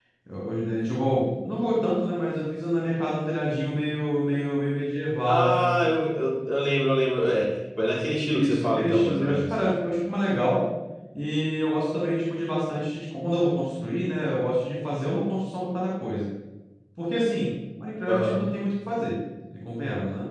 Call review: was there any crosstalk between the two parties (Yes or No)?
Yes